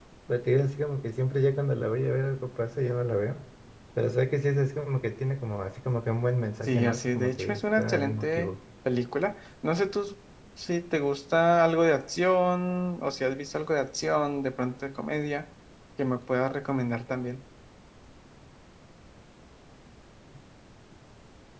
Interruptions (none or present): present